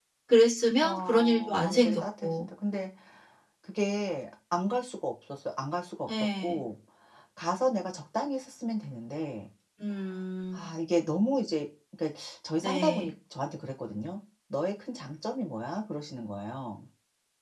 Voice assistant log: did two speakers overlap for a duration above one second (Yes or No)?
Yes